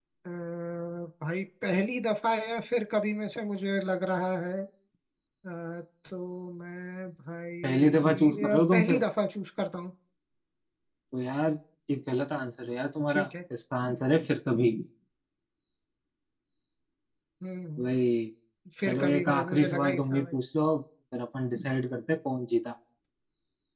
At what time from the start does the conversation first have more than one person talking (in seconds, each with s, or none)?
7.7 s